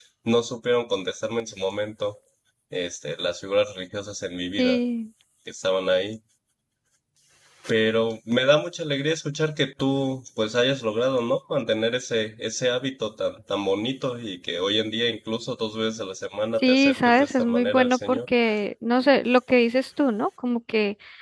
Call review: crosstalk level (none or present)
present